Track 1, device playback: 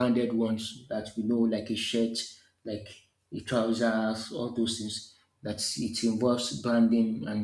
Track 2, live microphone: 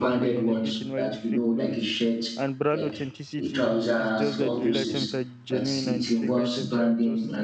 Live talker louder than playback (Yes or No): No